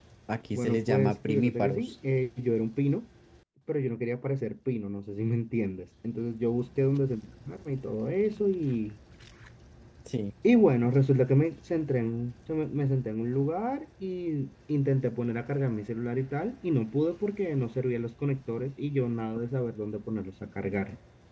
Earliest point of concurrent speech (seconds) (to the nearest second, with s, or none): 1 s